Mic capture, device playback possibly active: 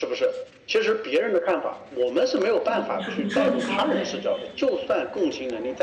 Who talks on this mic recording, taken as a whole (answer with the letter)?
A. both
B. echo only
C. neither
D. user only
A